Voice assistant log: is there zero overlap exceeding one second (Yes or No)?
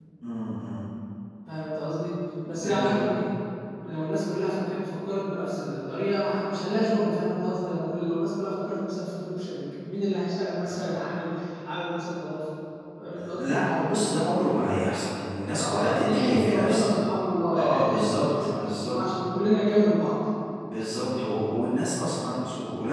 No